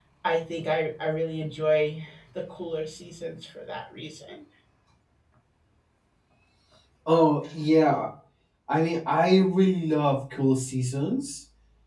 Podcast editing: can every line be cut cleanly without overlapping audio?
Yes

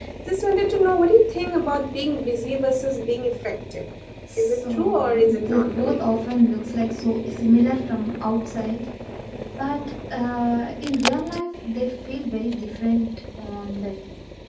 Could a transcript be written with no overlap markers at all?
No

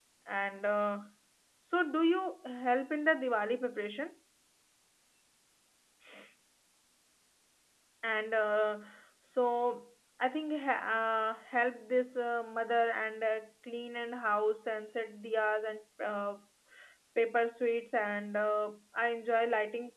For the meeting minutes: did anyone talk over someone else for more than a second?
No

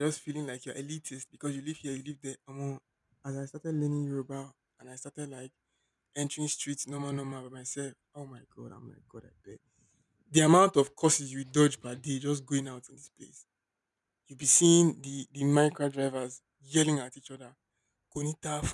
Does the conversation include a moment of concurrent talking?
No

